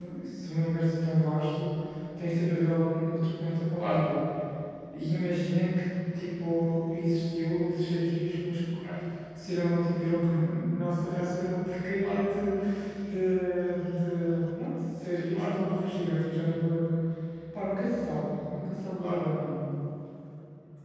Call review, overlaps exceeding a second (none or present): none